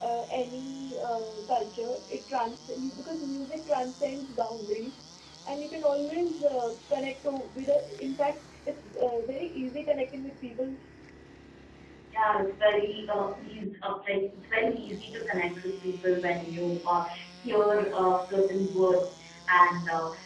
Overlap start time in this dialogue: none

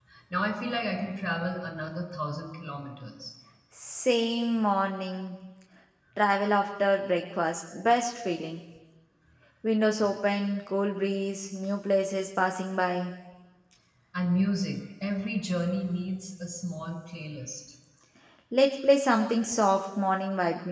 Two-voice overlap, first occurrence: none

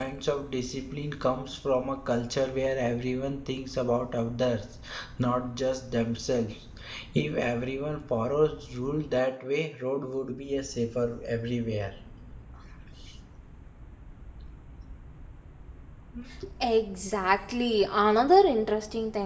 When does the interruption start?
none

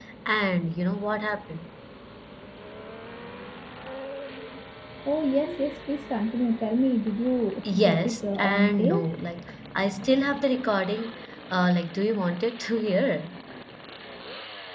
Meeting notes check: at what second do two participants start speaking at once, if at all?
7.7 s

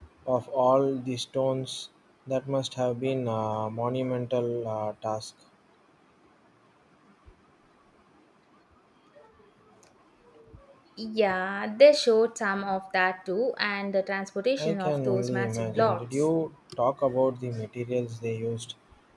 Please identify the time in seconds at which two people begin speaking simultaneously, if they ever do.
14.6 s

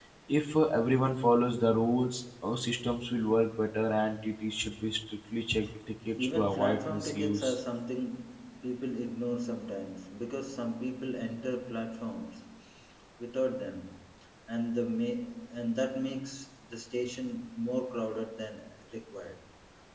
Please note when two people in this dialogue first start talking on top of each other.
6.2 s

